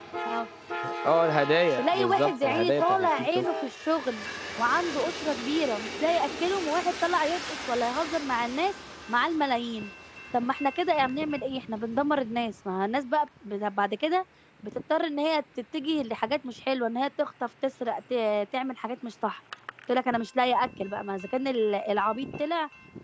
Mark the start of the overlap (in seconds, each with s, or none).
1.8 s